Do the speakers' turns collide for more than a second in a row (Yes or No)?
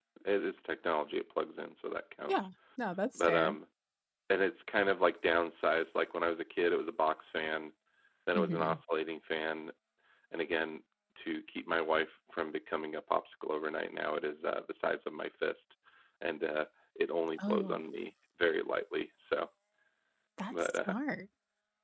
No